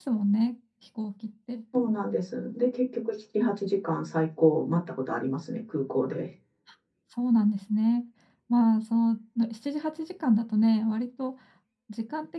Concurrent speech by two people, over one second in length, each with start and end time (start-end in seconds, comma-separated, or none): none